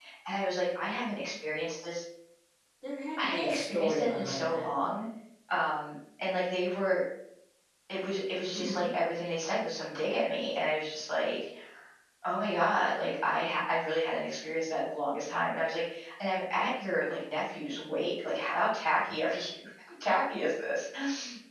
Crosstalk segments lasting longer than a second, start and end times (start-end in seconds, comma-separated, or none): 3.2-4.7